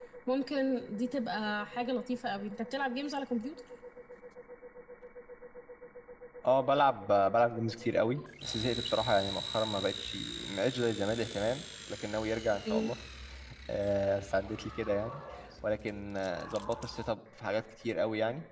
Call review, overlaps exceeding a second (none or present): none